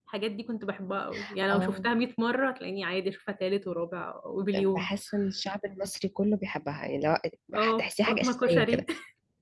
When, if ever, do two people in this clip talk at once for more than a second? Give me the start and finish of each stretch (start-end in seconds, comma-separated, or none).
7.6-8.9